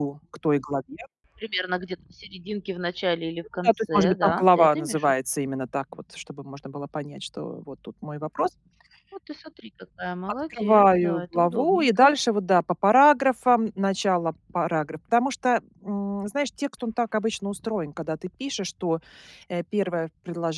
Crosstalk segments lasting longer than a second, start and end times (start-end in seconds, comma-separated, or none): 3.6-5.1, 10.6-12.1